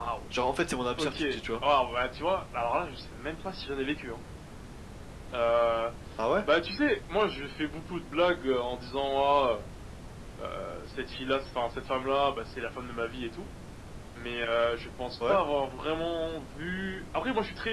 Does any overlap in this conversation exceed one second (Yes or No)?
No